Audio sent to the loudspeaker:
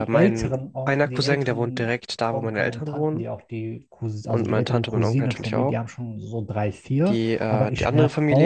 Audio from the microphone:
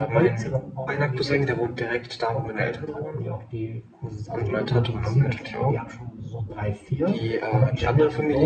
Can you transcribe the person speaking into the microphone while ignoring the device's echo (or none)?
none